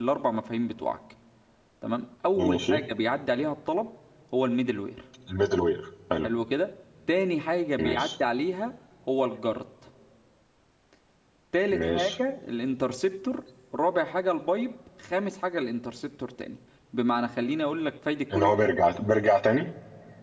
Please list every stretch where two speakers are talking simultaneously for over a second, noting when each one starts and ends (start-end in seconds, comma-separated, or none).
none